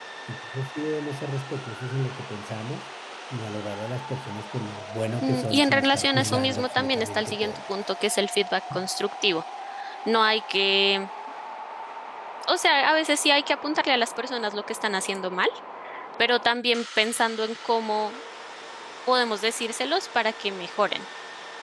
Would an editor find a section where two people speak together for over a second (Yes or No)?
Yes